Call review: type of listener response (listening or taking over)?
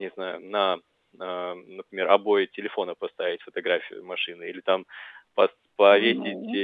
listening